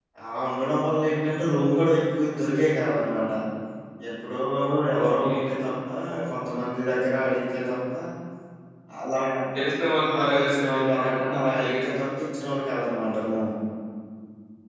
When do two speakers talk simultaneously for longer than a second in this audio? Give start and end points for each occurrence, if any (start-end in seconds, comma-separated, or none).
10.1-11.8